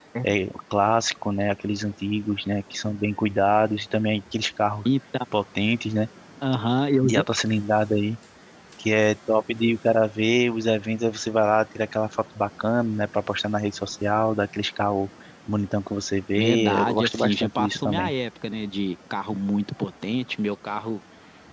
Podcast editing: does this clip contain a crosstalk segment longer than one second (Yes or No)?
Yes